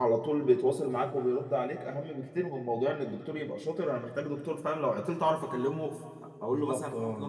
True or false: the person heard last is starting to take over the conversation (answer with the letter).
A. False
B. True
B